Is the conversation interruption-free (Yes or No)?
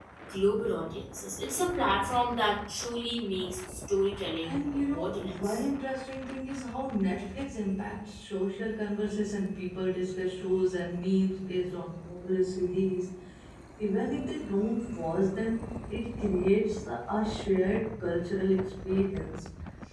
No